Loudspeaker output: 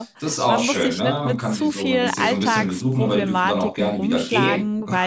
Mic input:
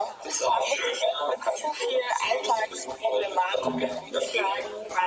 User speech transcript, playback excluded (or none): Mm.